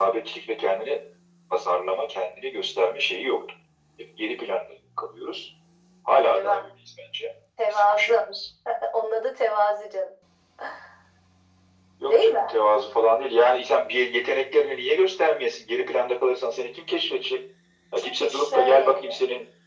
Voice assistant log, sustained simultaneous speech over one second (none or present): present